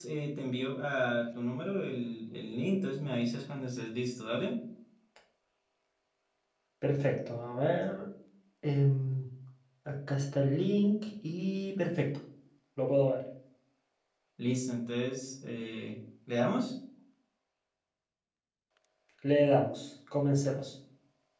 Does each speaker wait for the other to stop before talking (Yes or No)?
Yes